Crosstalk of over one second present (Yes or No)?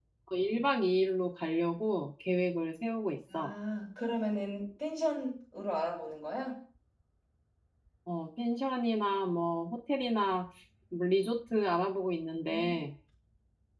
No